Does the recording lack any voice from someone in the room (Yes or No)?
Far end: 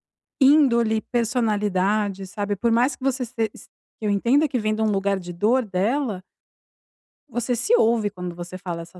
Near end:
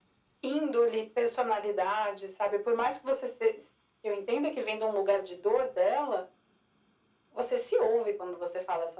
Yes